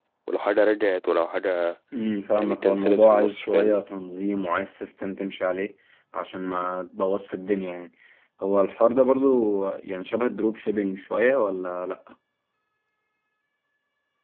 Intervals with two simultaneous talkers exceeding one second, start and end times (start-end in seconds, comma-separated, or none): 2.4-3.8